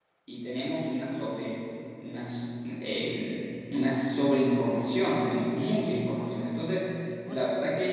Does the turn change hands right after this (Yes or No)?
No